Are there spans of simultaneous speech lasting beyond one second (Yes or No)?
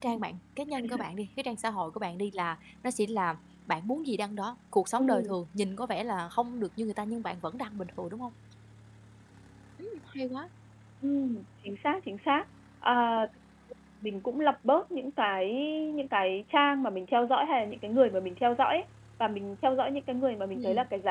No